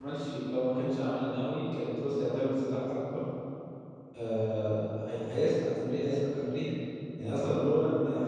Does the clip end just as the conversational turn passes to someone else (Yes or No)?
No